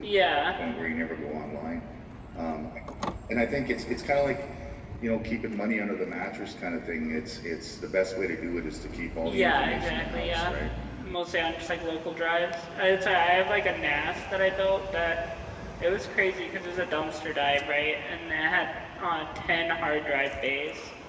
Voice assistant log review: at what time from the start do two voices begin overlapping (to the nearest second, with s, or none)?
9 s